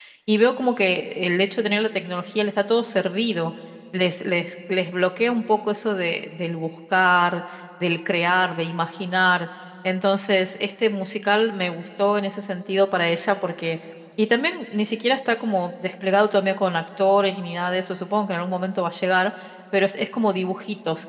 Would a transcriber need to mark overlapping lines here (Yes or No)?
No